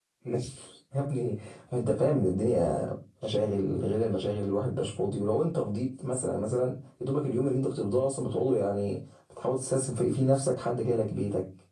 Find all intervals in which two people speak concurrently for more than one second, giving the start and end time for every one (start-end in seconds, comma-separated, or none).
none